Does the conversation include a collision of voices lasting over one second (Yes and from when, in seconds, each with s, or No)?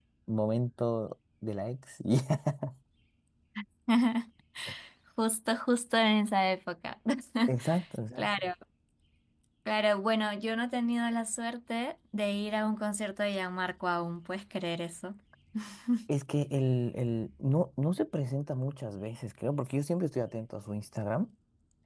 No